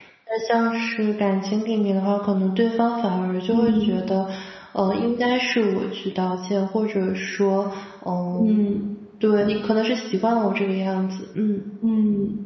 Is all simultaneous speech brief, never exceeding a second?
Yes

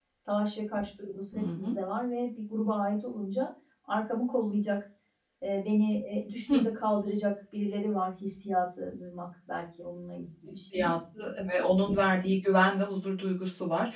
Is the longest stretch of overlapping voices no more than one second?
Yes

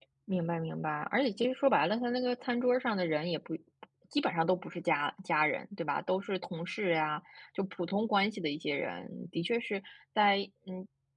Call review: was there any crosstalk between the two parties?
No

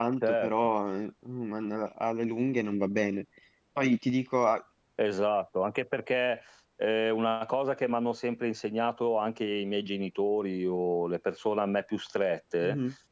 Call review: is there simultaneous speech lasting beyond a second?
No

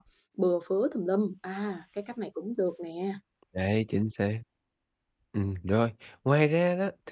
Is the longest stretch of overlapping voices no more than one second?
Yes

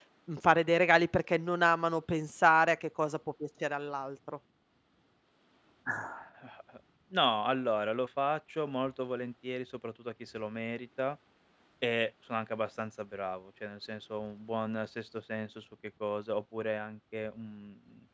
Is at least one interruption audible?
No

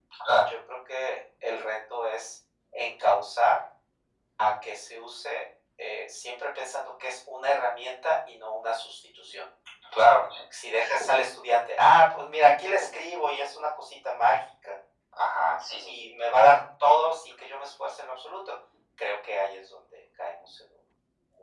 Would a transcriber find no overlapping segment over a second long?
Yes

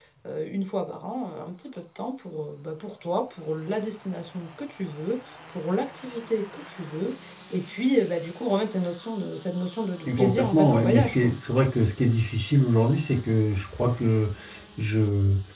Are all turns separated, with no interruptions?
No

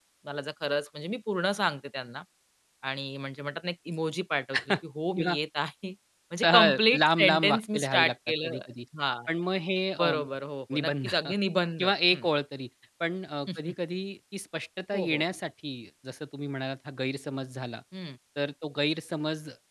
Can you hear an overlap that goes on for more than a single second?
Yes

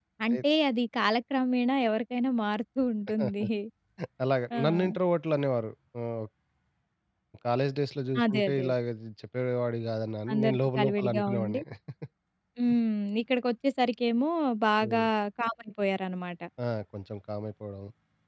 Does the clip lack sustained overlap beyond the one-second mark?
No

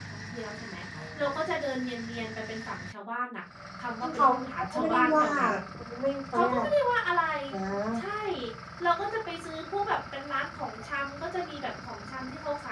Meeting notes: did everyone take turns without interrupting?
No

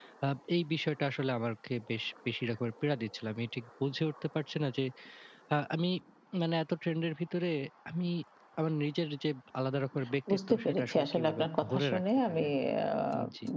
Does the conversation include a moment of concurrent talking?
Yes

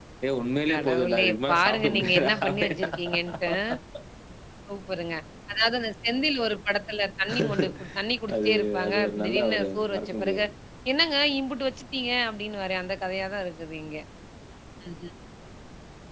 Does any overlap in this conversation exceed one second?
Yes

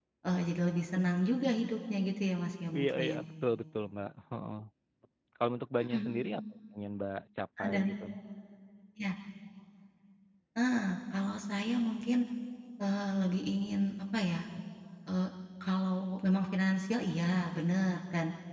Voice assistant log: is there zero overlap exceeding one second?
Yes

